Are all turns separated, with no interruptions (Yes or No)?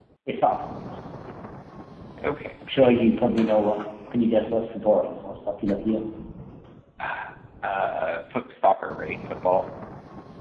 Yes